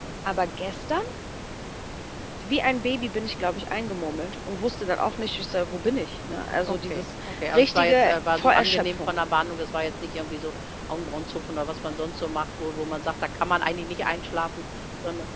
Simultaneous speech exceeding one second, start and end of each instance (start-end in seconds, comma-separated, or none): 6.7-9.1